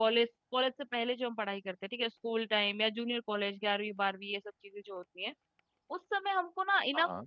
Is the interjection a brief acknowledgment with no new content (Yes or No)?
Yes